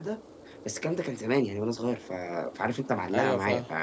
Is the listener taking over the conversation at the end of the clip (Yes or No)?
No